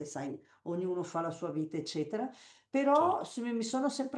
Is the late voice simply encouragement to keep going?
Yes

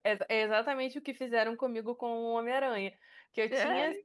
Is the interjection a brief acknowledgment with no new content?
Yes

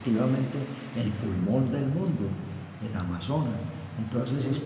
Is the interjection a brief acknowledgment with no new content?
Yes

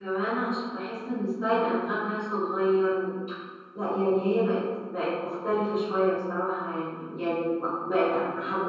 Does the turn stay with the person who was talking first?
Yes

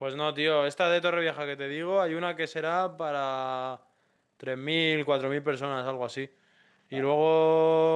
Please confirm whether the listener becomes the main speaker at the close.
No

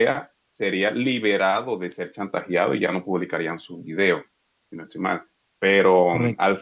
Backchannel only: Yes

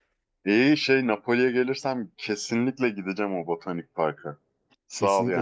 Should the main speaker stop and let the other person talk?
Yes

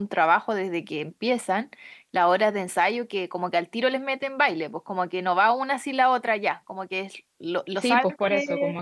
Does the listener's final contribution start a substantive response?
Yes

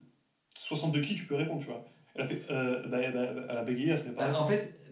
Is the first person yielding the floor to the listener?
Yes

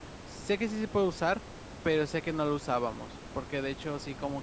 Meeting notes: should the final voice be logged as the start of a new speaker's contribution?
No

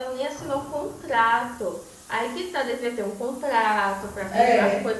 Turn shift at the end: No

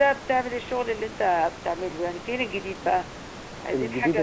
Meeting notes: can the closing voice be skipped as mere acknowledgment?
No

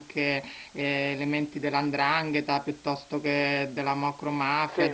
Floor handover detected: No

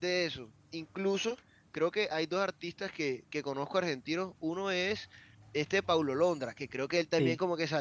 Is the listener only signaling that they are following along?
Yes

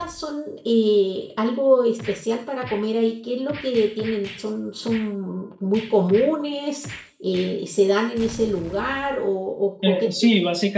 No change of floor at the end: No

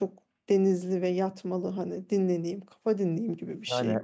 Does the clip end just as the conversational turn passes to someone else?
Yes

